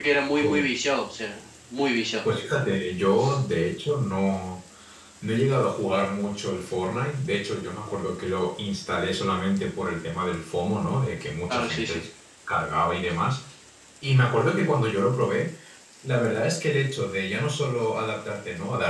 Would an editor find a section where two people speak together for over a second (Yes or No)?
No